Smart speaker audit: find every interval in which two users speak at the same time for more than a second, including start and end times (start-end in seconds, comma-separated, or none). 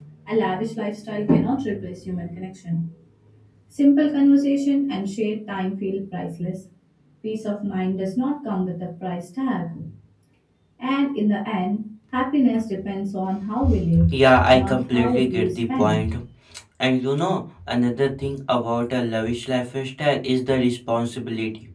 14.5-16.0